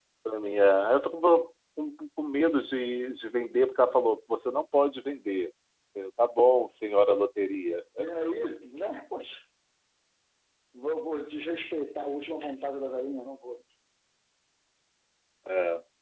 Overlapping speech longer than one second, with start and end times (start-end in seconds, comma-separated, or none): none